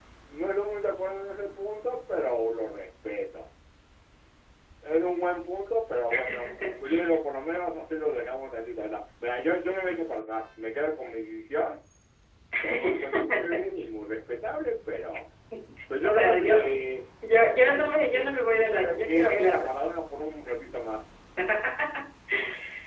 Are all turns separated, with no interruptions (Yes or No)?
No